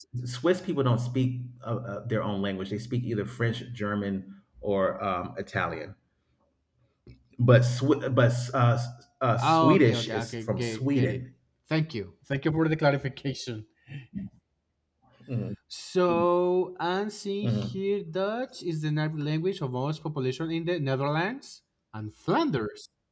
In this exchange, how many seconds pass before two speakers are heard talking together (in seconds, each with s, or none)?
9.4 s